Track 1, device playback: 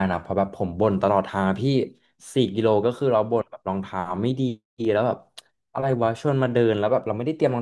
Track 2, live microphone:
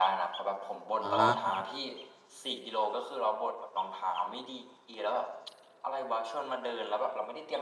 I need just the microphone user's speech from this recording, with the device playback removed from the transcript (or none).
อ